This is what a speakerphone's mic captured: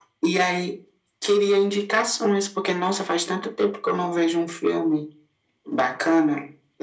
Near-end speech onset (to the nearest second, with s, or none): none